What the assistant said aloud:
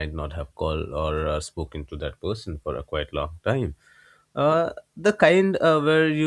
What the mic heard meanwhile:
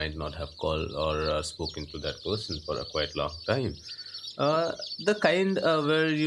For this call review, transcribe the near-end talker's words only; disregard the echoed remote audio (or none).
none